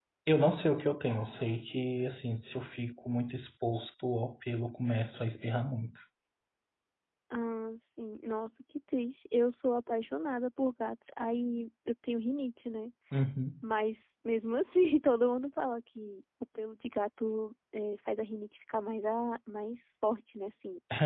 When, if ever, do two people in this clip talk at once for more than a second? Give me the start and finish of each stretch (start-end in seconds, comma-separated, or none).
none